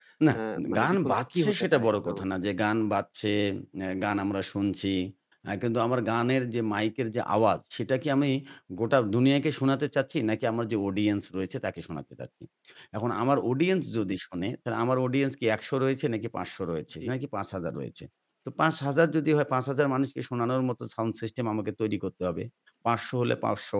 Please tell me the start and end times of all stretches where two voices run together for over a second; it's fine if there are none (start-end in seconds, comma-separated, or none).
0.8-2.2